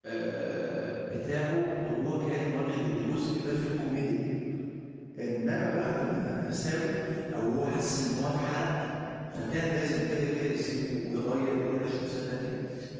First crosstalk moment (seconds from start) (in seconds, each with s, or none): none